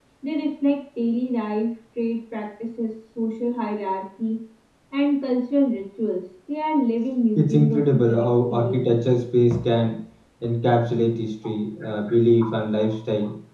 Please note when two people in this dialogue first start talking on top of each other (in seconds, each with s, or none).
7.4 s